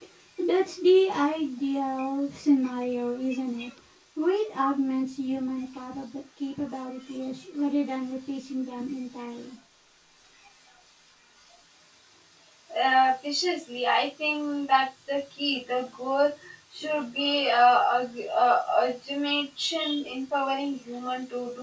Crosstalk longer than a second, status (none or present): none